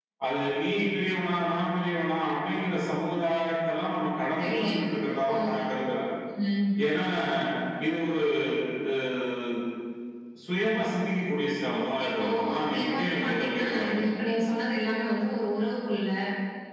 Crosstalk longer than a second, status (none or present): present